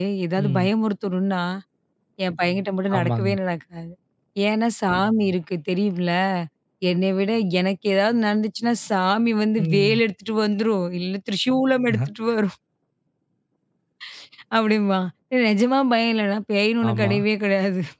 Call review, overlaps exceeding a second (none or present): none